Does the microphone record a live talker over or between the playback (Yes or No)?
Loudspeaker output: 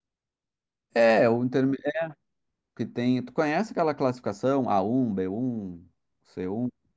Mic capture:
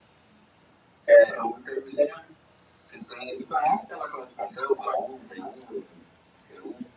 No